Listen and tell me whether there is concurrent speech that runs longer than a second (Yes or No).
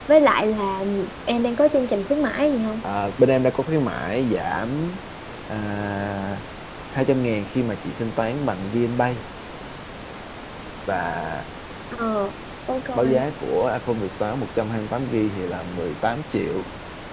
No